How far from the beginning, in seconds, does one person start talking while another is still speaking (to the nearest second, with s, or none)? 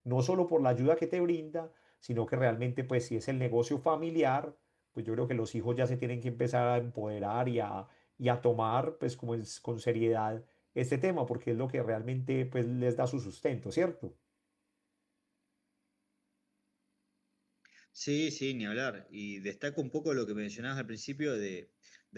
none